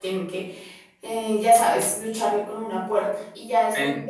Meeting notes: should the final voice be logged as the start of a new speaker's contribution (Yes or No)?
No